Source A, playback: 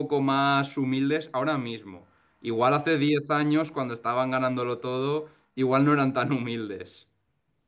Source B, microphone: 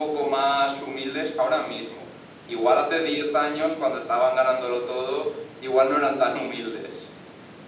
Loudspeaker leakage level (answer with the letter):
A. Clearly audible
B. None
A